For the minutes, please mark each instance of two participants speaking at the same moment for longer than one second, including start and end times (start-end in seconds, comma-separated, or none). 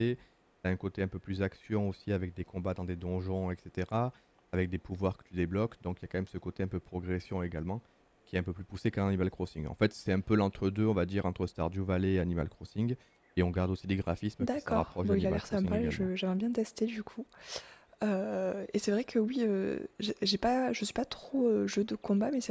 14.4-16.1